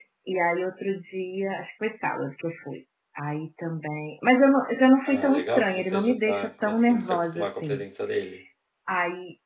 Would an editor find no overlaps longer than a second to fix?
No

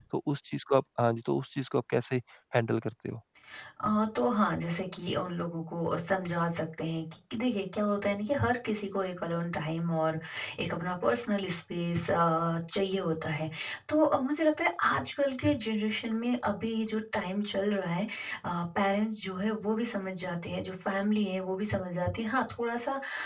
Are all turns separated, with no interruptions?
Yes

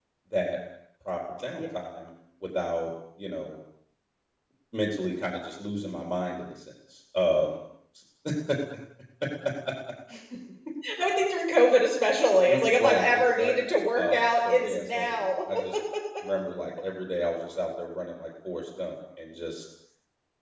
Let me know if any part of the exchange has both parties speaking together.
Yes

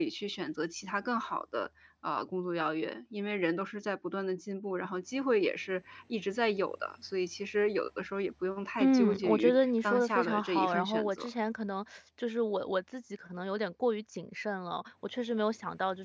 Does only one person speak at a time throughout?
No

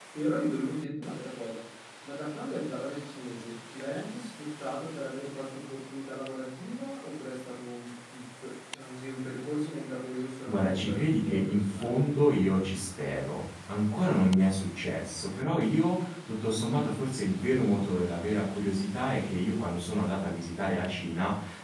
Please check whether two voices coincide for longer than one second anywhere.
Yes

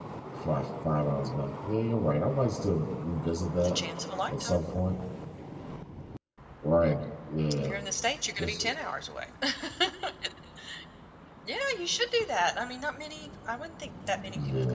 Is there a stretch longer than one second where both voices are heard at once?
No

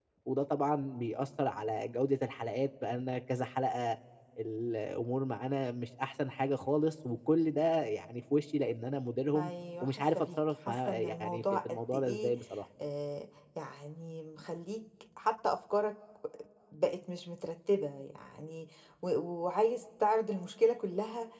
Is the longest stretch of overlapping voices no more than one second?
No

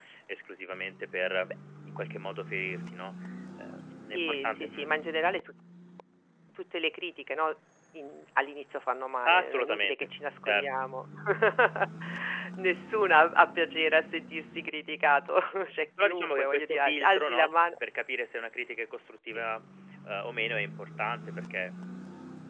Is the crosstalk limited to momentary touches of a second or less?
No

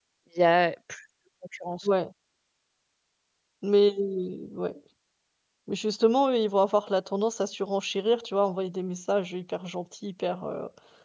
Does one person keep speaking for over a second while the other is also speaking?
No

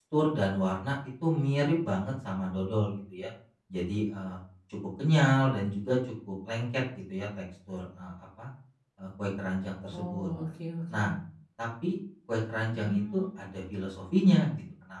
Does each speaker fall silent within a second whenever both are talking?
Yes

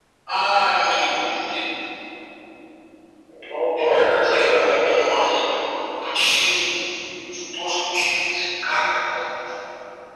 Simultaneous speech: Yes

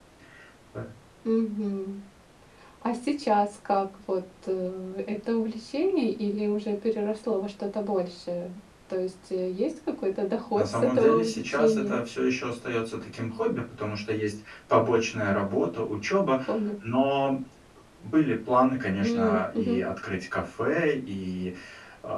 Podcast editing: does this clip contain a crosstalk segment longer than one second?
Yes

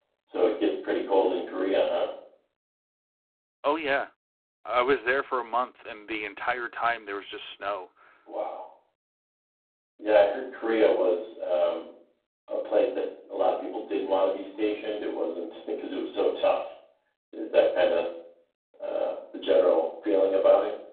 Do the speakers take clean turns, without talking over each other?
Yes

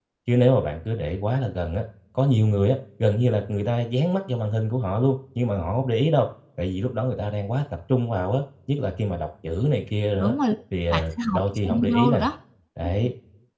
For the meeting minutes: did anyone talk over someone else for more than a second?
Yes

